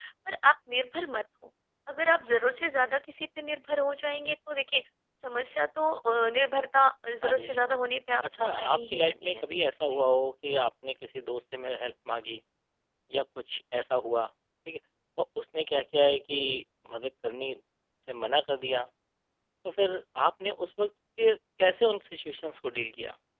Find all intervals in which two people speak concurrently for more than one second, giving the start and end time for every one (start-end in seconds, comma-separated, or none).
8.2-9.4